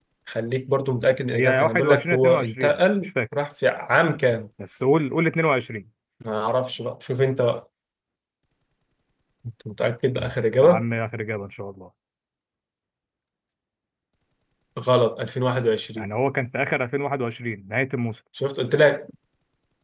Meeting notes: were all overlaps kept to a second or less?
No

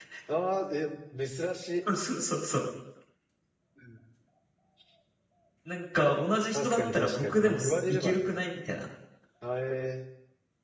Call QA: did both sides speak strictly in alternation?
No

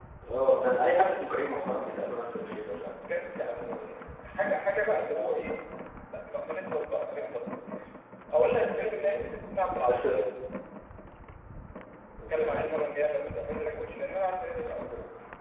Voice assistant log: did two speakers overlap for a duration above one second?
No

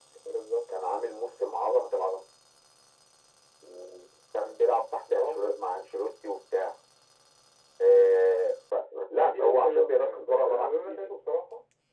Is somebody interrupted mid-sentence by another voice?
Yes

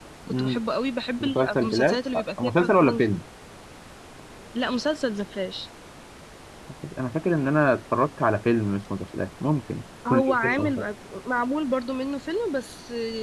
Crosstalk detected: Yes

